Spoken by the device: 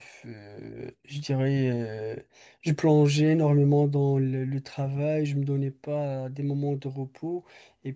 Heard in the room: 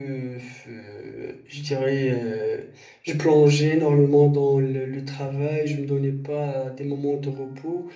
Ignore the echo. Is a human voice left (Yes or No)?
No